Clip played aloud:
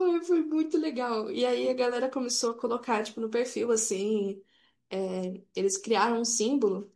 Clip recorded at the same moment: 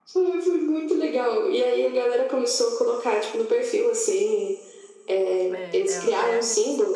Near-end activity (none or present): present